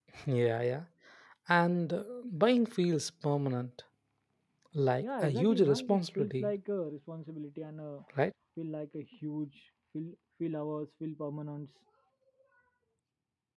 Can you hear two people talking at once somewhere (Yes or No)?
Yes